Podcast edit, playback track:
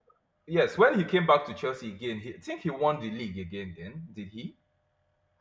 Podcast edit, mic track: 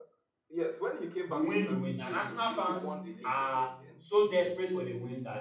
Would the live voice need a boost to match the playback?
No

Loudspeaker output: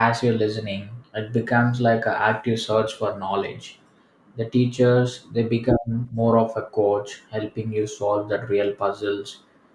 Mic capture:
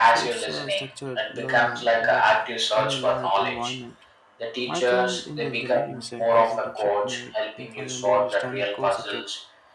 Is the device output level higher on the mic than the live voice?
Yes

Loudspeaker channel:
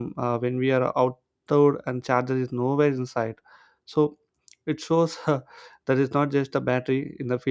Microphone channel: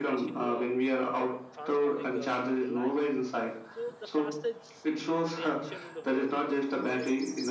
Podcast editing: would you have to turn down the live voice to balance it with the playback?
No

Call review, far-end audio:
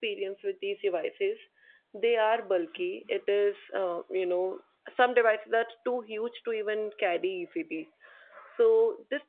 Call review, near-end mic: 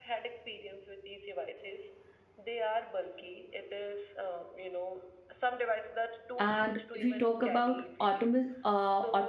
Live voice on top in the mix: Yes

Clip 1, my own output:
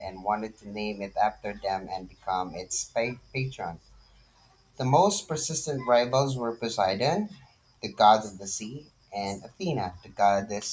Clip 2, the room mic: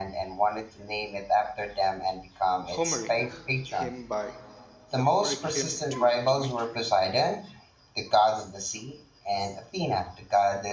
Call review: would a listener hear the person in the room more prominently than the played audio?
No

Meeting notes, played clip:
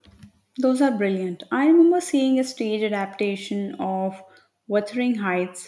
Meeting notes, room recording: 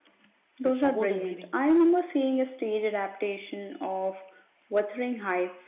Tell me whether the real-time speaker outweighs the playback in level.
No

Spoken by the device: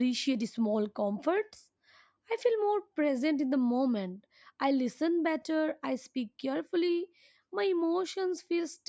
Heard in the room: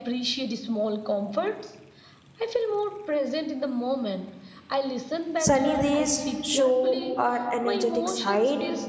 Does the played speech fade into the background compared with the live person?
Yes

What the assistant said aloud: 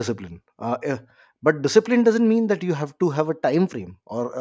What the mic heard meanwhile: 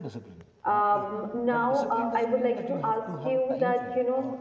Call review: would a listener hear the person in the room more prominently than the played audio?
Yes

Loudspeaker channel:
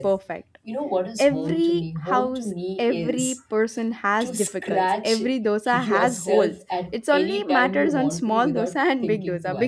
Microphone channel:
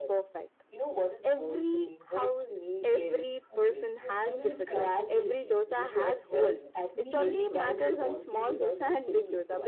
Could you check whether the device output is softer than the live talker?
No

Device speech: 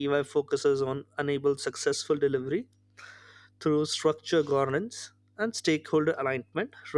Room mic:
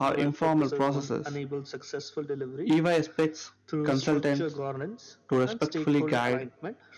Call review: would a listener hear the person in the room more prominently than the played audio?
Yes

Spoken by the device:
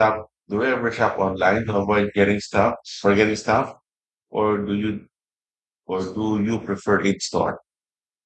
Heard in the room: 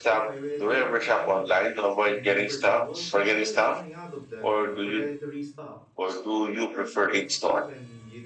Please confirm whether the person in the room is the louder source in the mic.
No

